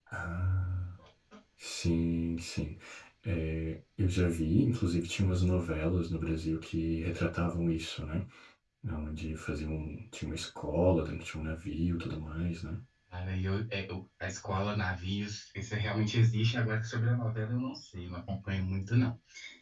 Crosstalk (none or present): none